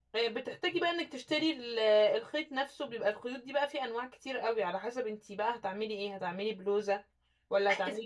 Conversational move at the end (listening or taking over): taking over